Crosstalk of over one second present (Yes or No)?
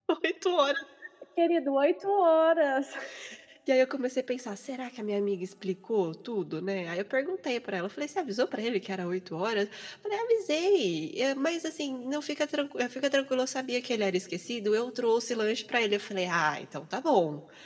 No